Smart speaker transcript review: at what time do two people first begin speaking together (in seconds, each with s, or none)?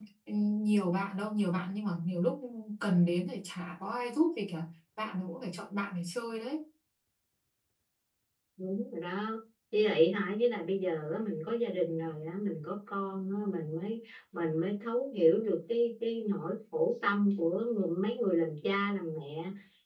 none